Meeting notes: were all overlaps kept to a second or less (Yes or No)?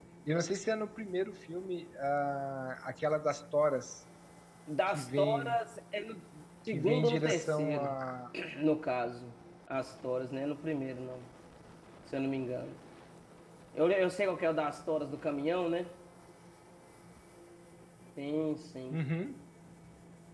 No